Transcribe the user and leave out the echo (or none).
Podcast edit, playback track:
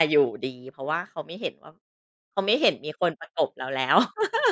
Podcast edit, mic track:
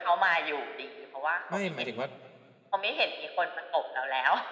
ไม่หมายถึงว่า